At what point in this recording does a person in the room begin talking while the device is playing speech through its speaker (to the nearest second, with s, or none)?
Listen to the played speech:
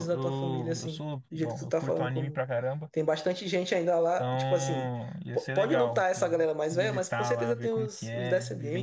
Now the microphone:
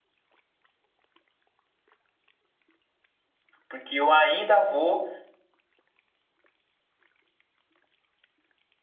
4 s